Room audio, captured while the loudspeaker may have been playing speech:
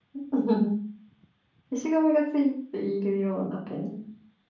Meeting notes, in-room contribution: present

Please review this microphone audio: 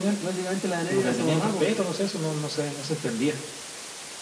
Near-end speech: none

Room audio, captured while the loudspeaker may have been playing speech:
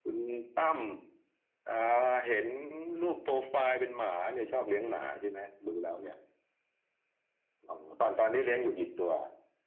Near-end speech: none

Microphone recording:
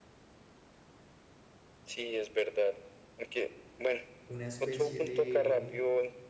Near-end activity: present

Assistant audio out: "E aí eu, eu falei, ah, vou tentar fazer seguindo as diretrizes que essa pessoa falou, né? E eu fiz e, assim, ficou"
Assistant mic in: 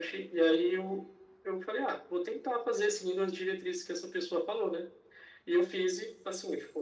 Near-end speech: none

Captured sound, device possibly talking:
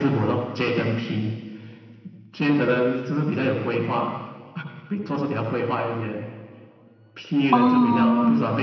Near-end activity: present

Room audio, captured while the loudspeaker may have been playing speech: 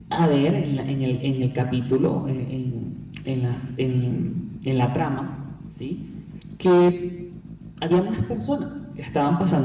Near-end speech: present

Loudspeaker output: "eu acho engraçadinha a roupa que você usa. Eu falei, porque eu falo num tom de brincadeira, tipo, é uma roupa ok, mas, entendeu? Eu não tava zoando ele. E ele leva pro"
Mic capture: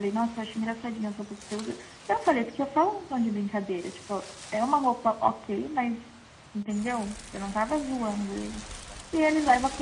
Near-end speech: none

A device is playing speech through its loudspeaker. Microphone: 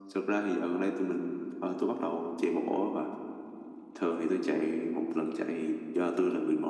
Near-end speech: none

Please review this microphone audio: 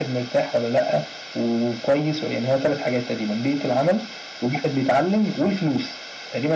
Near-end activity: none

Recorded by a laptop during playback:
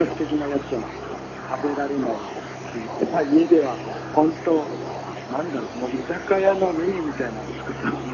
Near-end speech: none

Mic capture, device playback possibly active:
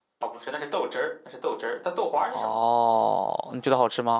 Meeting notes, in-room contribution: present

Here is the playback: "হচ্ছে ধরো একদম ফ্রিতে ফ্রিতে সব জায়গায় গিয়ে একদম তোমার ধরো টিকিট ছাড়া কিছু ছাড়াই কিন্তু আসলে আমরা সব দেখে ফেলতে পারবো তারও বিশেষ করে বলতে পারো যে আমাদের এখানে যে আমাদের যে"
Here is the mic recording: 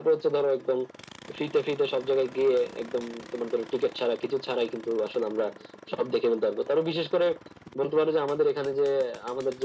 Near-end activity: none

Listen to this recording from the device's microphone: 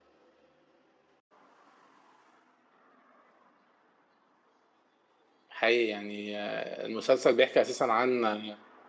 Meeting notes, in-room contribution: present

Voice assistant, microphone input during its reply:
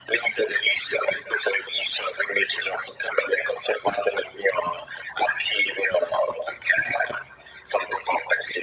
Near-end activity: none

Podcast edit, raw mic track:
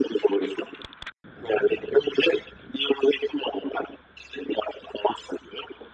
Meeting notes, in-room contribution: none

